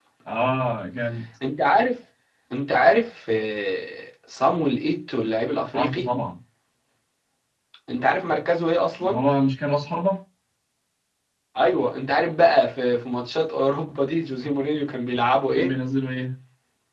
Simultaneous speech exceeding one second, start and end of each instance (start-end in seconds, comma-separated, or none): none